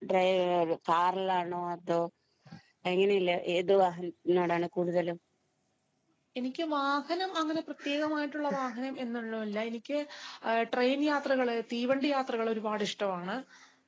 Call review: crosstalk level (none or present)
none